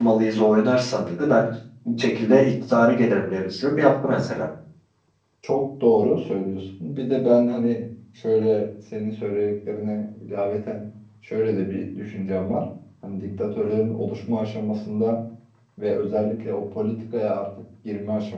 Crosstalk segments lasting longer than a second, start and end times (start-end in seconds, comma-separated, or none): none